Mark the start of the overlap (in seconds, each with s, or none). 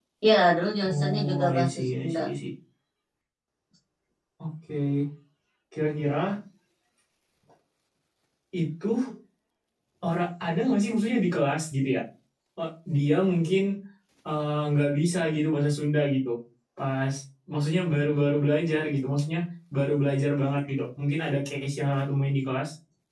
0.8 s